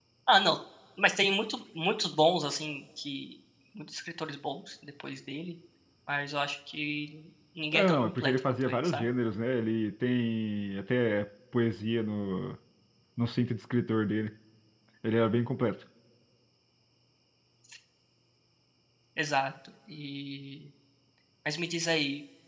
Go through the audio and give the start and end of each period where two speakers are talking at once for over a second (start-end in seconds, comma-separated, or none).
7.7-9.0